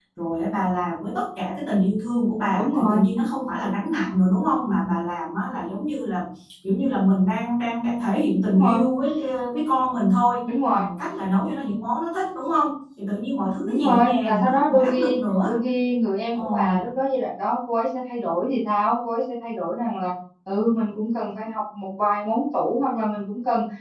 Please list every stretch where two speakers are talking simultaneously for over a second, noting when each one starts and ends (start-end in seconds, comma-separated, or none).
13.6-15.5